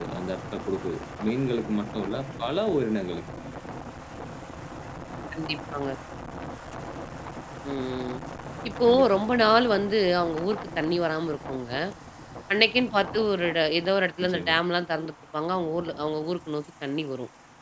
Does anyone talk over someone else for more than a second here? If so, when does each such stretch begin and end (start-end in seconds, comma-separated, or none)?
none